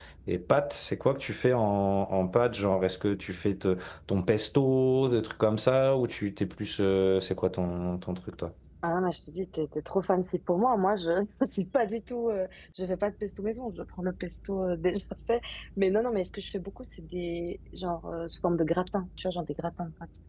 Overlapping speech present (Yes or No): No